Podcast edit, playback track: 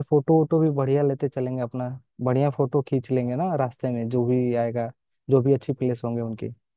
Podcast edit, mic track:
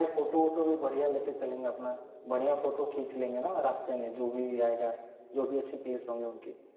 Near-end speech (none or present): none